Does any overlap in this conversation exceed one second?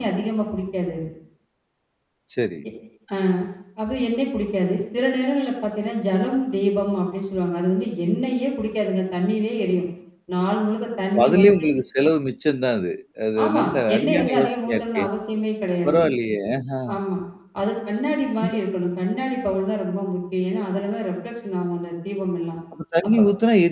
Yes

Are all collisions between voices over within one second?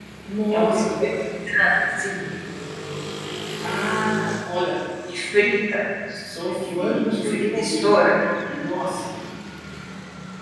No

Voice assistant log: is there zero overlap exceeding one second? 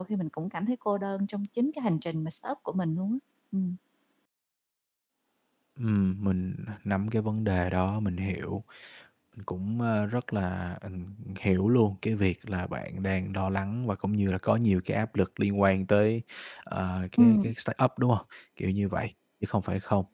Yes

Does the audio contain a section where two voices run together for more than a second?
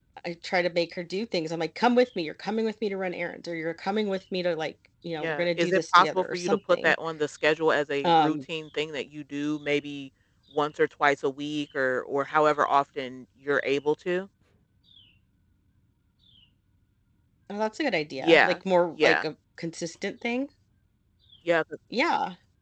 Yes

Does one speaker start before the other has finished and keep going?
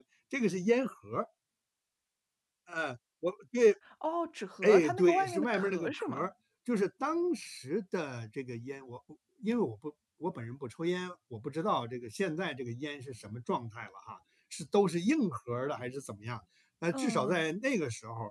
Yes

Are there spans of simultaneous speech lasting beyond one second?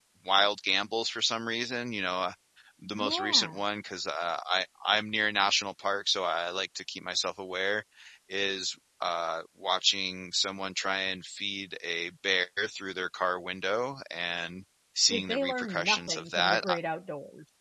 Yes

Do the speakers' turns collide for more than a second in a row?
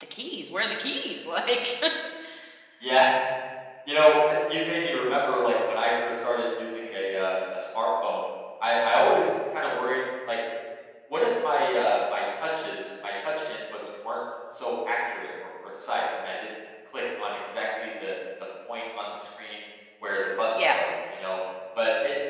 No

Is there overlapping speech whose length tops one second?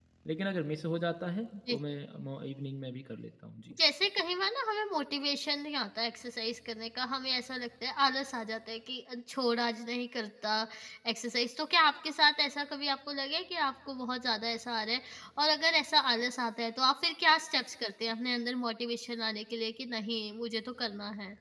No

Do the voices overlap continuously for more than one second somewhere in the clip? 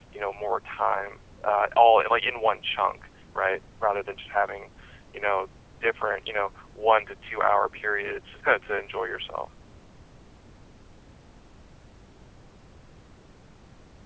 No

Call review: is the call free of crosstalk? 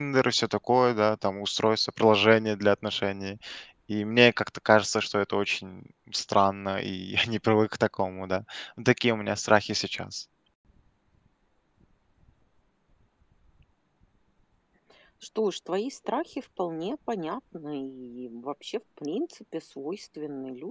Yes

